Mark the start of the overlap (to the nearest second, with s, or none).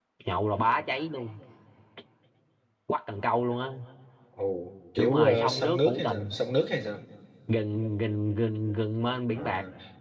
5 s